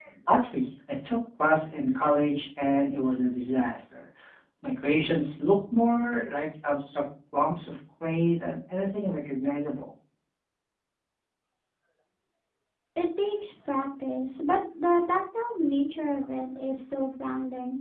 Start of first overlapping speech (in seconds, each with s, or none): none